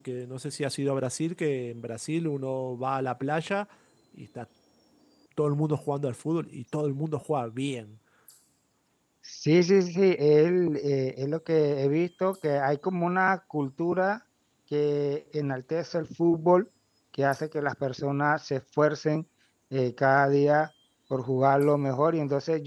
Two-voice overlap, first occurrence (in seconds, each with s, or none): none